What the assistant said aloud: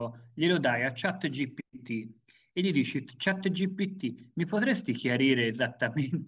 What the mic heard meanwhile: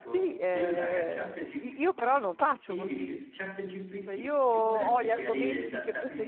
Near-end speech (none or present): present